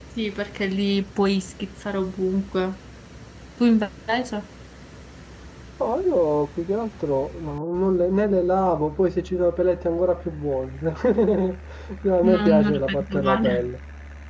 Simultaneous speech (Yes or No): Yes